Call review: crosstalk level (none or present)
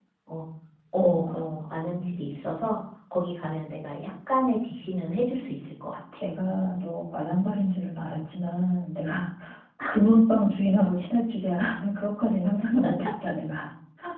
none